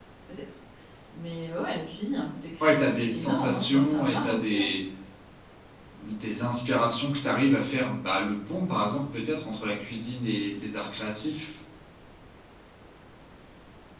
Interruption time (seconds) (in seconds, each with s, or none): 2.6 s